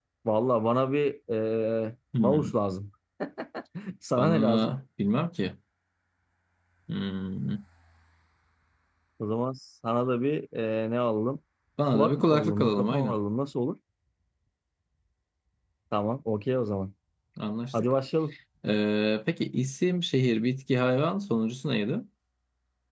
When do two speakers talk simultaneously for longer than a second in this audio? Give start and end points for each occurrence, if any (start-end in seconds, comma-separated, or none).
11.9-13.2